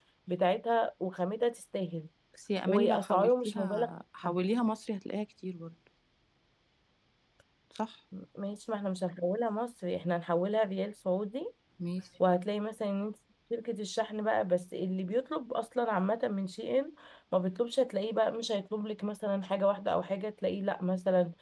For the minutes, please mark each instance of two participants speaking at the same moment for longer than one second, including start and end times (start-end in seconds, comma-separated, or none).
2.7-3.9